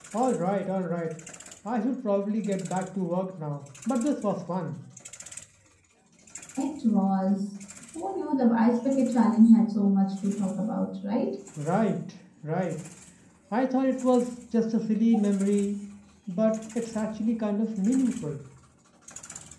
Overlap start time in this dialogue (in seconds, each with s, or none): none